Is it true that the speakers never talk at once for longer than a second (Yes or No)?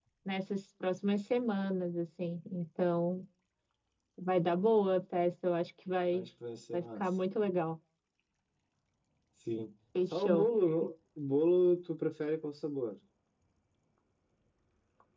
Yes